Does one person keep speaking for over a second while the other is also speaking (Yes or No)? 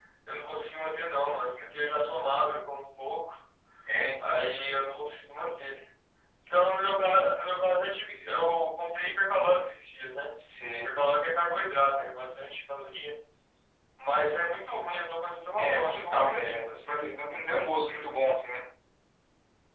Yes